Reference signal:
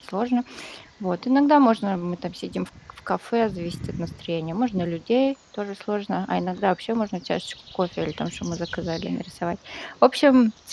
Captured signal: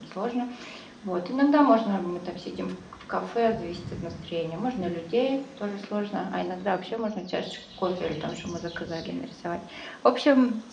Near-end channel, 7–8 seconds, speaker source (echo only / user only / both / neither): echo only